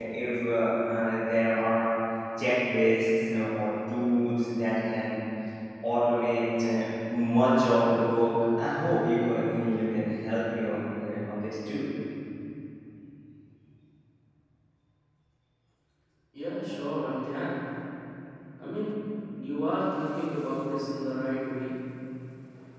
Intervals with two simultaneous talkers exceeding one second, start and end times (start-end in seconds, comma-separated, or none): none